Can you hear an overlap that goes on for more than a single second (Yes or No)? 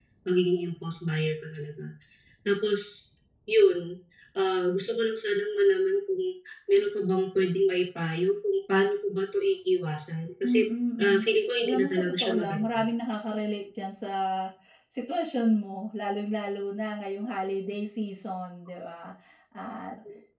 Yes